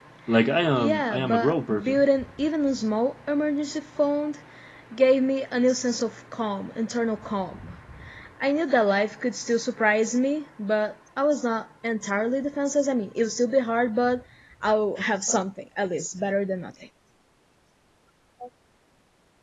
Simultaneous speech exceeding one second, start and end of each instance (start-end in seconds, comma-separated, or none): 0.8-2.0